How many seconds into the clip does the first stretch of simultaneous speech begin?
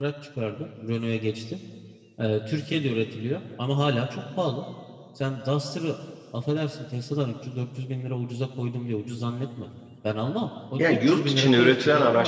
10.8 s

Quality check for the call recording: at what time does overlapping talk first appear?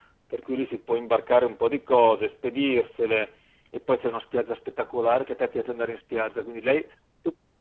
none

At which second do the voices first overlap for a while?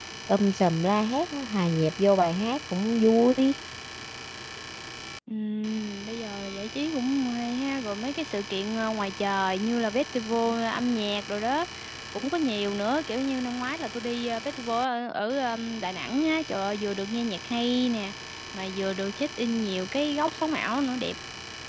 none

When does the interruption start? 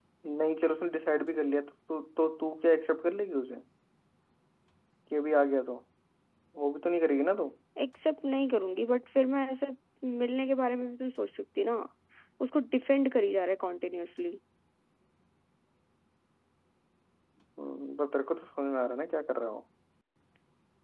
none

